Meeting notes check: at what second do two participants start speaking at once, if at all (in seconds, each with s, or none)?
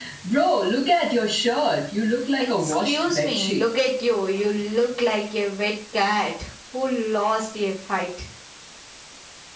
2.4 s